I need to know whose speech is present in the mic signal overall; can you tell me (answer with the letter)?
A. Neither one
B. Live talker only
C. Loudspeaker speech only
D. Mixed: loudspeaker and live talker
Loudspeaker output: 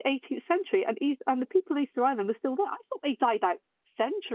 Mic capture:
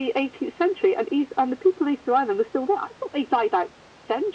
C